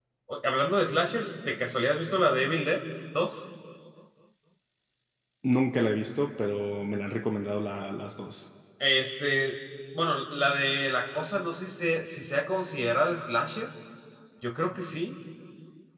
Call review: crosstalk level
none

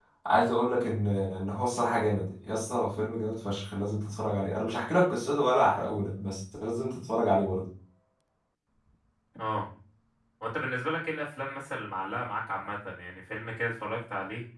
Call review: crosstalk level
none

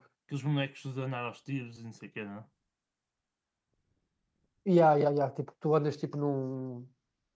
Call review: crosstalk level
none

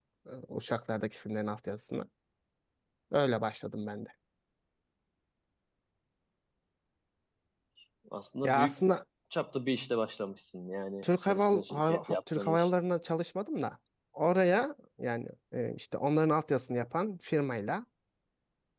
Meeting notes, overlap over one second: present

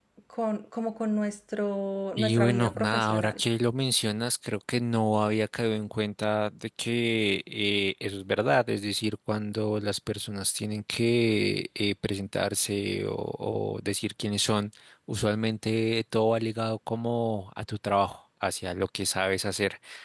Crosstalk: present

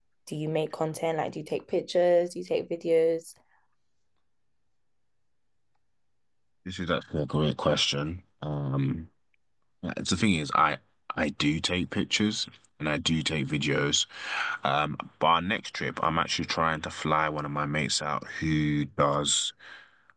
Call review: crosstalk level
none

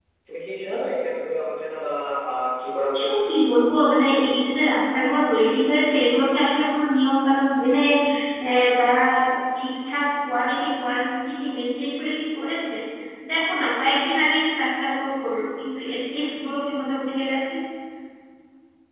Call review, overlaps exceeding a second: none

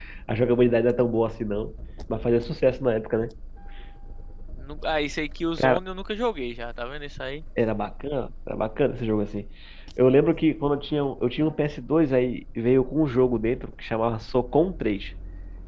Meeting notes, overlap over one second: none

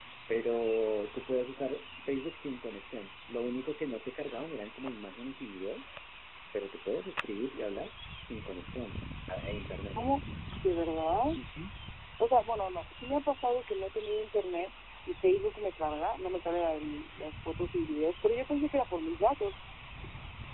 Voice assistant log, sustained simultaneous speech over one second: none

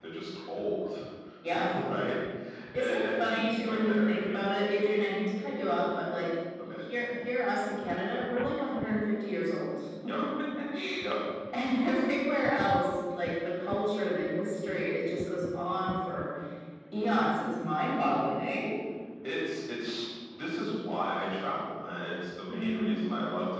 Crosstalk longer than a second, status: present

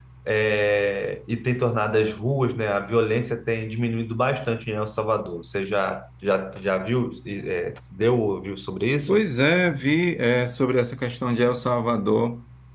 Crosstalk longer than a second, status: none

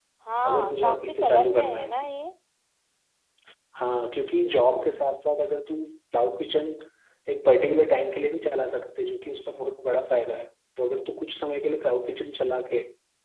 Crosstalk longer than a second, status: present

